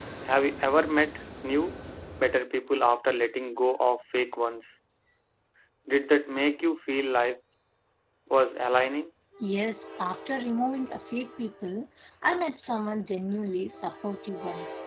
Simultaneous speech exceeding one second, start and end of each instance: none

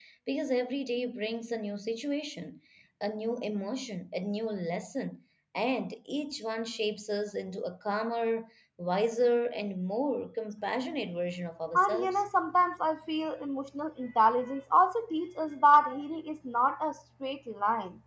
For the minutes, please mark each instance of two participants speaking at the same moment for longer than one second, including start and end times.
none

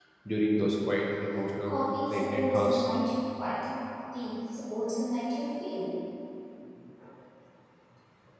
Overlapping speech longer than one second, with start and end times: 1.6-2.8

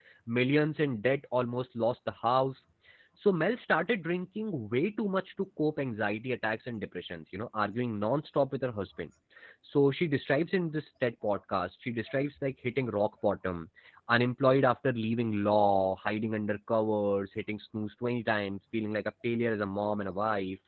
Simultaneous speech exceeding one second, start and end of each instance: none

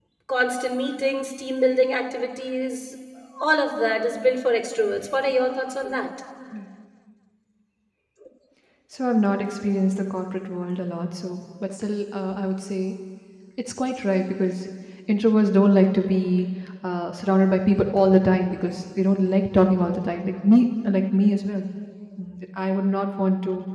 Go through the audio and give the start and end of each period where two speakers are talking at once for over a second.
none

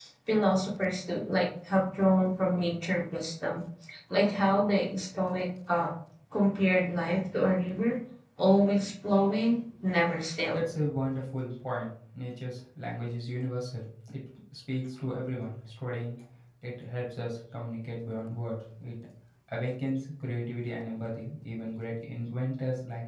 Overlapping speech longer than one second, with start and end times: none

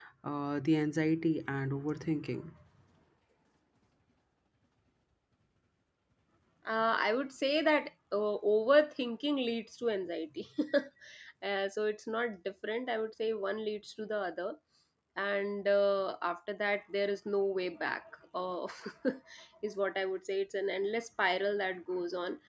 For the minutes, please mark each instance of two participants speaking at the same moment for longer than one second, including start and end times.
none

